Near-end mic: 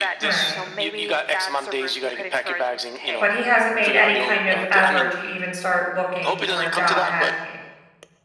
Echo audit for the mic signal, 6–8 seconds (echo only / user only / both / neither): both